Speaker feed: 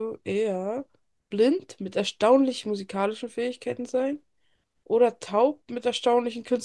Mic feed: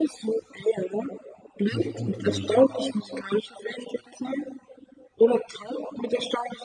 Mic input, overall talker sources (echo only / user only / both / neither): both